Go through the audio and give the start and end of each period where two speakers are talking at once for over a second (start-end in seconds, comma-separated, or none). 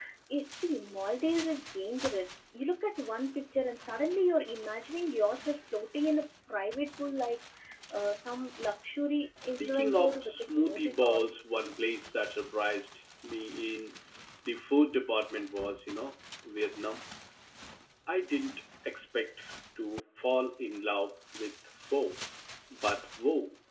9.6-11.3